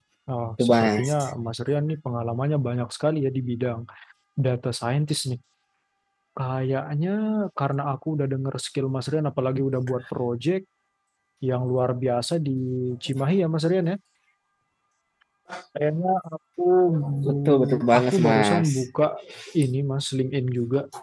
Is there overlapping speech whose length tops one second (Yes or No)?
Yes